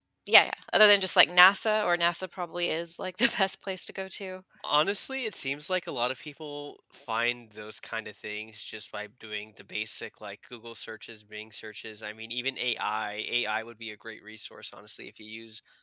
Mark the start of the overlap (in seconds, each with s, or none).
none